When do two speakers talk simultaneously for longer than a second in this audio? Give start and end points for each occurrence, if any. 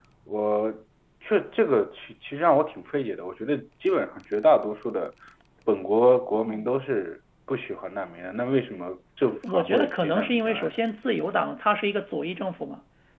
9.3-10.7

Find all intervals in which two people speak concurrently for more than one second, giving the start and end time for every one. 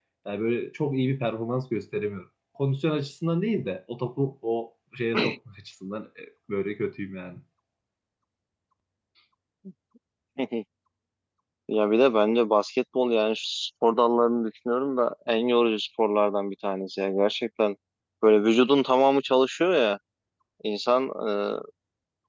none

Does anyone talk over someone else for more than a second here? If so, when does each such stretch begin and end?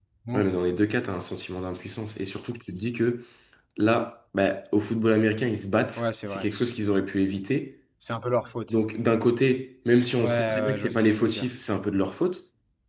10.2-11.4

